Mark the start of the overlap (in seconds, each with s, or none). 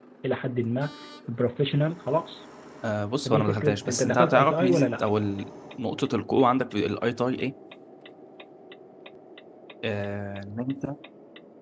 3.2 s